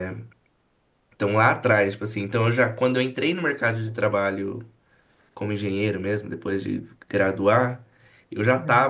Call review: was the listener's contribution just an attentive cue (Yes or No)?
Yes